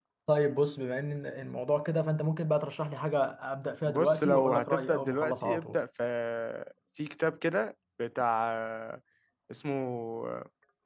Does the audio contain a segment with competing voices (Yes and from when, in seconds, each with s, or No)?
Yes, from 3.9 s